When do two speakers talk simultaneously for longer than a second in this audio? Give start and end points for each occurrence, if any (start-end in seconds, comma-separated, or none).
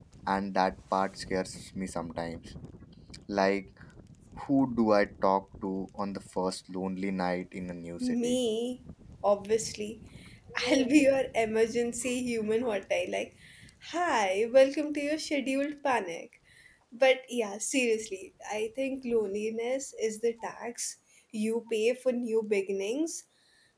none